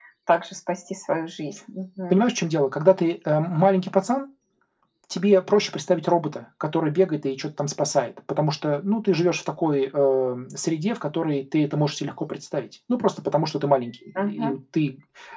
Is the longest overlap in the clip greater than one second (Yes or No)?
No